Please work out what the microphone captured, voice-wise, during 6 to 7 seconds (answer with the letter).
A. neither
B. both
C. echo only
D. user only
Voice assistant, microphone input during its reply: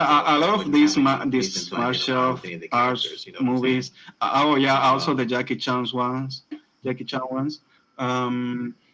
C